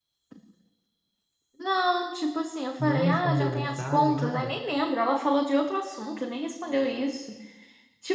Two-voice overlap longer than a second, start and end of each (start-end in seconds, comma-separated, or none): 2.8-4.5